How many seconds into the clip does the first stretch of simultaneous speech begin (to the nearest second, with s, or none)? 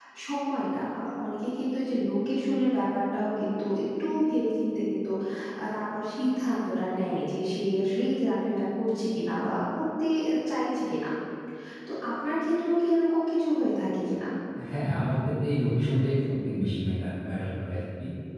none